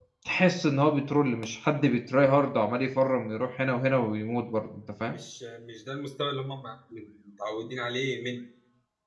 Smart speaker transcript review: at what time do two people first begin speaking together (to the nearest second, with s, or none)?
none